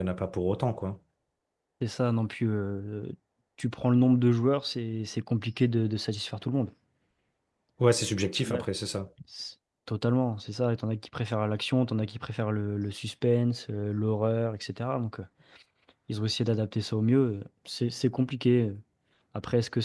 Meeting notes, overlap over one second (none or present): none